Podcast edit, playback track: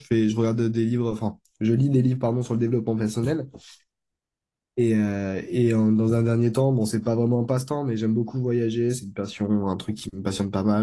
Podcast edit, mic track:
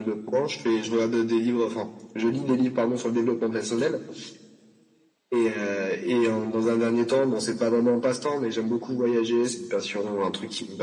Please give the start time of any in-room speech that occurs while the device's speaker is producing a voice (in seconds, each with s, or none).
none